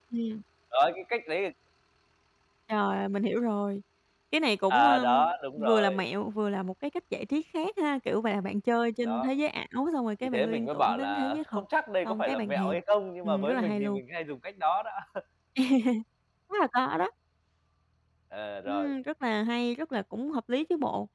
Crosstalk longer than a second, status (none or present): present